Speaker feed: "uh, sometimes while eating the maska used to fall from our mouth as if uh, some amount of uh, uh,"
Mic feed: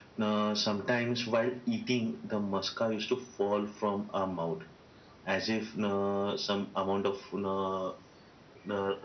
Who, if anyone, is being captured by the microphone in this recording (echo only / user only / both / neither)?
echo only